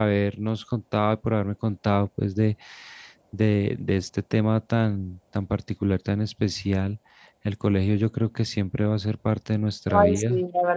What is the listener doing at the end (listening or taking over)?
taking over